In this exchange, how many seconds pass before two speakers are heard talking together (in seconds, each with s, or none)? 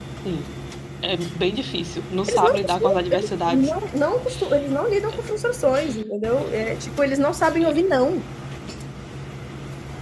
2.3 s